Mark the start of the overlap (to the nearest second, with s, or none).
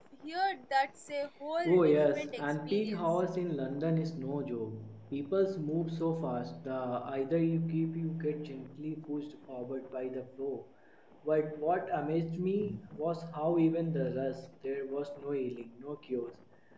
2 s